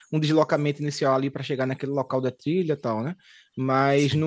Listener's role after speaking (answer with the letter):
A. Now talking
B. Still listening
B